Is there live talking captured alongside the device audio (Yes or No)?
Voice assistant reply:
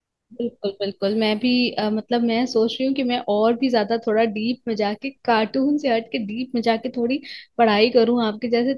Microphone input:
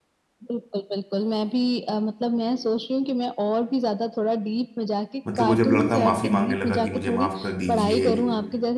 Yes